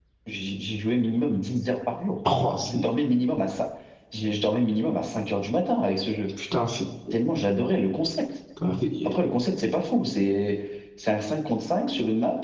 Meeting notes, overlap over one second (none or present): none